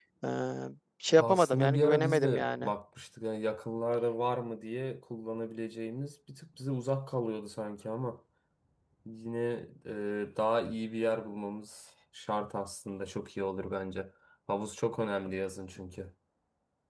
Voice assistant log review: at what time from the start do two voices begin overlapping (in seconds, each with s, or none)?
1.2 s